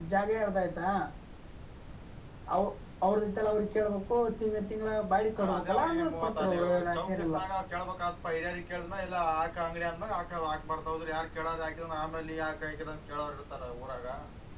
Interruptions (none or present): present